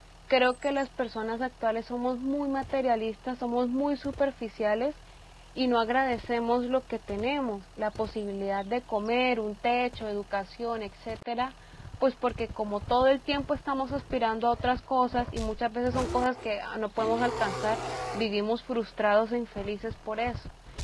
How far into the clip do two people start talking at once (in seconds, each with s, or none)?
none